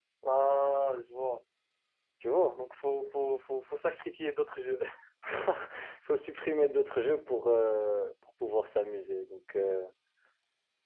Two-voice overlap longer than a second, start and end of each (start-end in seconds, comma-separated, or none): none